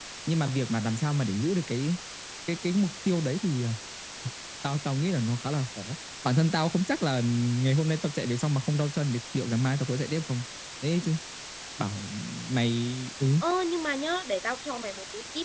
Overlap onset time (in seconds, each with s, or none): none